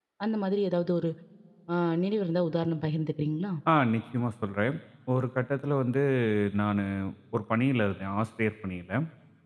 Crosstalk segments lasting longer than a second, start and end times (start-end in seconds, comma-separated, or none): none